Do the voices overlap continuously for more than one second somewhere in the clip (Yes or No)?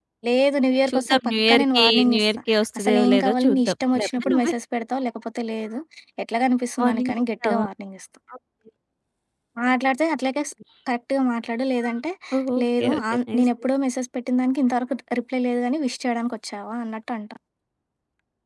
Yes